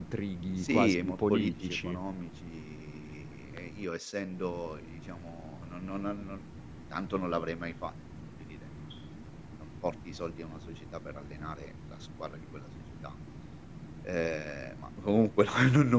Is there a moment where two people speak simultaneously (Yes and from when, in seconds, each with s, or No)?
Yes, from 0.6 s